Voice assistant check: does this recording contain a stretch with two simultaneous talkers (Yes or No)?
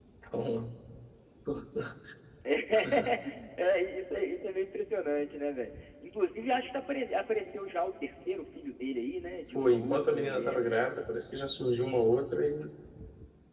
Yes